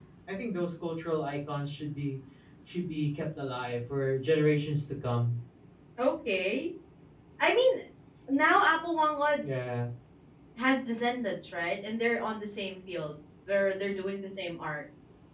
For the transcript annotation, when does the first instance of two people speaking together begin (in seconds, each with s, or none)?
none